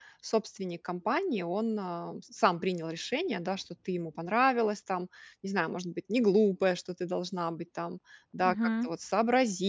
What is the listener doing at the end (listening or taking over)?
listening